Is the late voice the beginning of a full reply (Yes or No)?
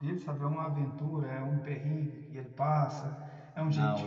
No